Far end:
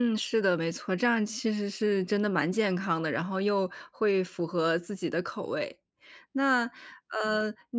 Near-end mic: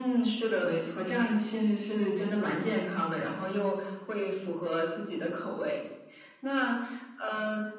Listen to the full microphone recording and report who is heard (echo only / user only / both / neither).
echo only